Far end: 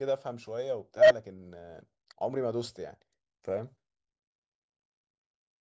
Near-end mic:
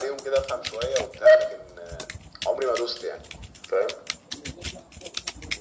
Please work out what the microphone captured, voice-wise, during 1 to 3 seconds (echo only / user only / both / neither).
echo only